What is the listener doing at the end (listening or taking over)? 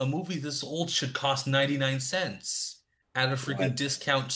listening